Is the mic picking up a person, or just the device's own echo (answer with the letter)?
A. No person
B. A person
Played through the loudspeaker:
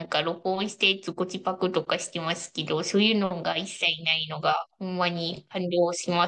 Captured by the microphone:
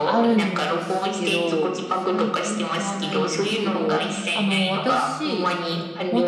B